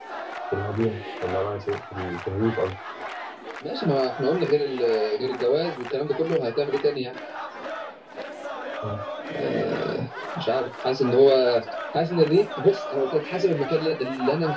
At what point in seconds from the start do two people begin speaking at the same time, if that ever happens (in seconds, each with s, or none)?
none